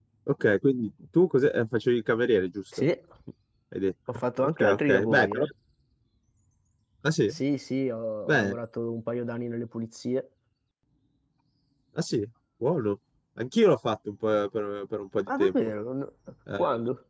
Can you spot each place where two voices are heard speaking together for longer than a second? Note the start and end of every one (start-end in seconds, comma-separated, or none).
4.1-5.4